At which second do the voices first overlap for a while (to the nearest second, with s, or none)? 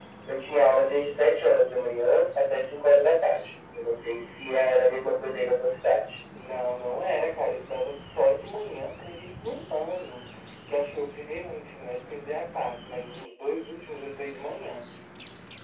none